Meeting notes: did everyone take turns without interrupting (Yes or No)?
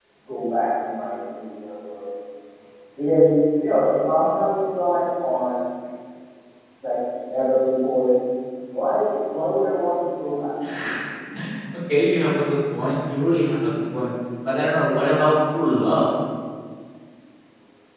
Yes